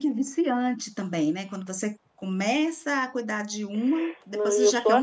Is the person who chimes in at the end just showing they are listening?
No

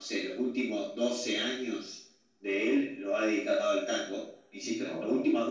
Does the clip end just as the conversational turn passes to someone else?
No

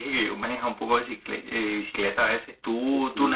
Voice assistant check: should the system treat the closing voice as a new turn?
Yes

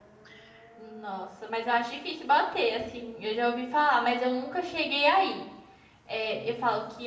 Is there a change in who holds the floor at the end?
No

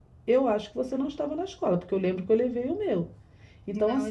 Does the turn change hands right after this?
No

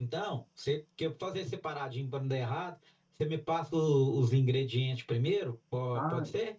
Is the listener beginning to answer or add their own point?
Yes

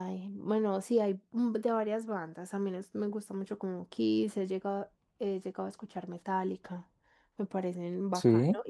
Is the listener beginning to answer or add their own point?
No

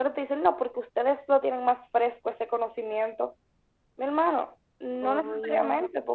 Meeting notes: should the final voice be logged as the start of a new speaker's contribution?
No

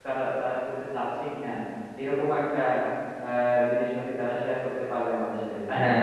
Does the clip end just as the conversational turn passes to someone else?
Yes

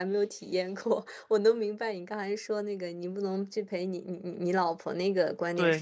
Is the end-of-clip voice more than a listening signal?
Yes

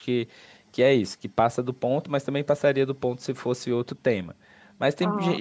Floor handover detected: No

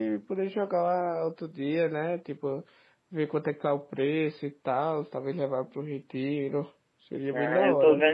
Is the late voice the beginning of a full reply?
Yes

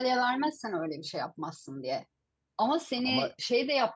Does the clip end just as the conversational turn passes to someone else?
No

